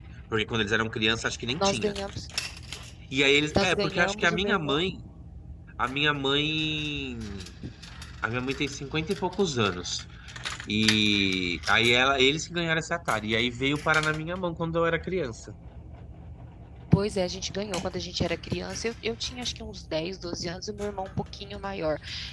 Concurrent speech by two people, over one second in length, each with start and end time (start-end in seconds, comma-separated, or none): 3.6-4.8